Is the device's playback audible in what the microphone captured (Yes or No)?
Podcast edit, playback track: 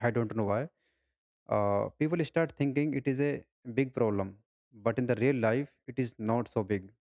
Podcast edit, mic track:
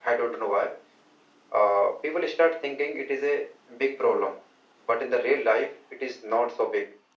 Yes